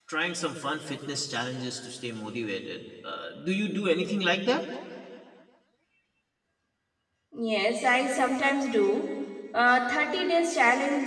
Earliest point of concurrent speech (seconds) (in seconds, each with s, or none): none